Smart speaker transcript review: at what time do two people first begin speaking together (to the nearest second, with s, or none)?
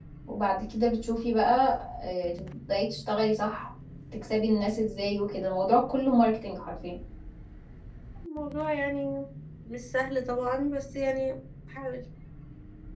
none